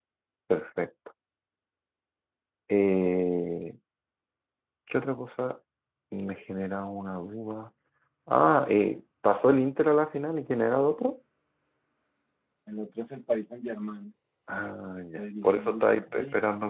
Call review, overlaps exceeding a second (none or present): present